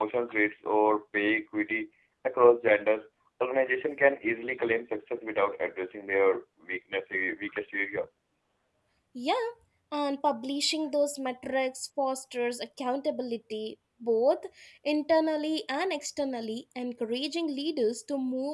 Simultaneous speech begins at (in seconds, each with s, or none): none